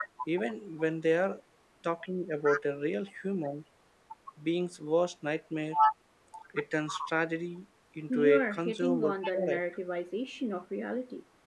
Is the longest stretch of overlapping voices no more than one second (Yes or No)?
No